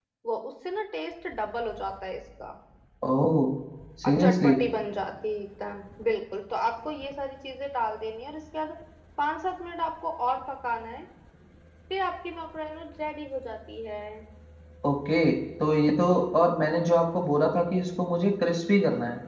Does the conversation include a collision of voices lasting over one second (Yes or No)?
No